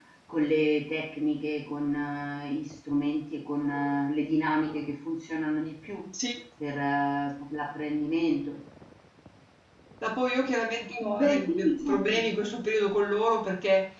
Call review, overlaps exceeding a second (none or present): present